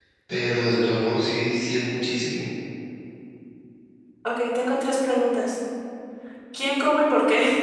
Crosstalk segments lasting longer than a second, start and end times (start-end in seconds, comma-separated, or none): none